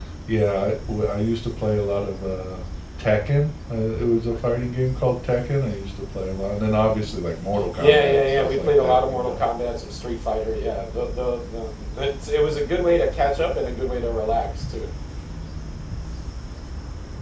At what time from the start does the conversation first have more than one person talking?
7.5 s

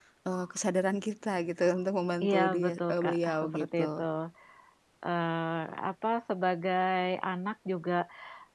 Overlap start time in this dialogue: 2.2 s

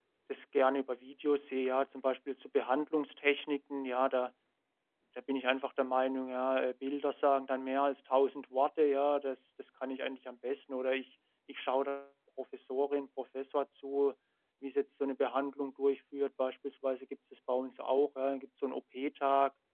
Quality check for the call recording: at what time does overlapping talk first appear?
none

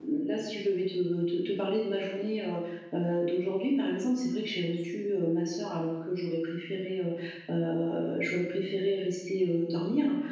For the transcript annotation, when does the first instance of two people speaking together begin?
none

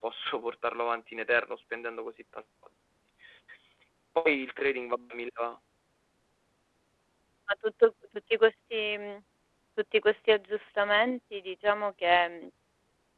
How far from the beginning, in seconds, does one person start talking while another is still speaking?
none

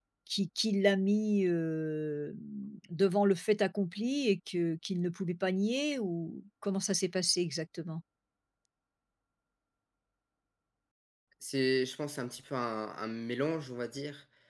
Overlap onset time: none

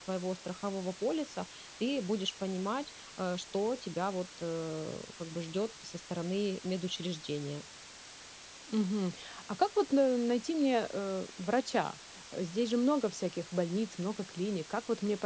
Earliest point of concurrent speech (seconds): none

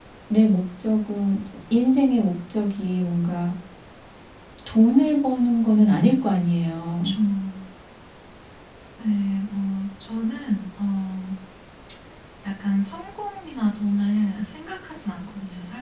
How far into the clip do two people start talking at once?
none

